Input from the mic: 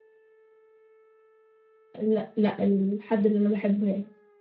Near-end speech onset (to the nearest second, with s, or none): 2 s